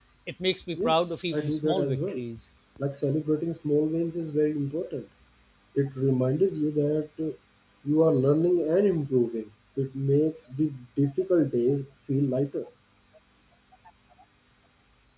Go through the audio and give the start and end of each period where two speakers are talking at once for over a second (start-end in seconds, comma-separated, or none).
0.8-2.2